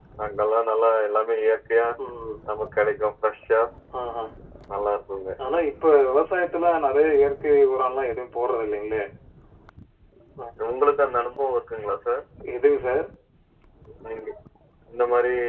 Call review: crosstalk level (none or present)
none